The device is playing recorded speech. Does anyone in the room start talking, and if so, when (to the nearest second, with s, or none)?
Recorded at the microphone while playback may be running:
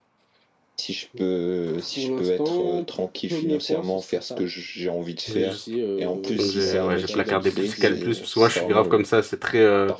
5 s